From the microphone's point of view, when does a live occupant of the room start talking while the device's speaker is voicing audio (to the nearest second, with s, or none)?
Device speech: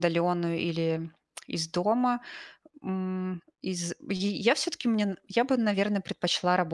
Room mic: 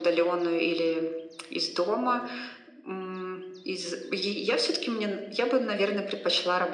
none